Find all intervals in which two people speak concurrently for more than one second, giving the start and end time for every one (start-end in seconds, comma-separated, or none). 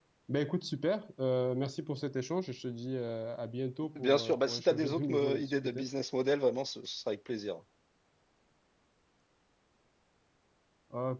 4.0-5.9